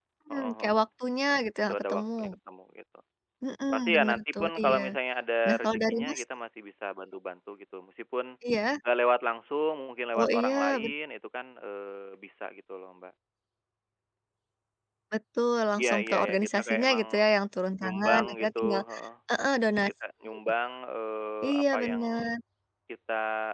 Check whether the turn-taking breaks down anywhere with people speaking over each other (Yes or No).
Yes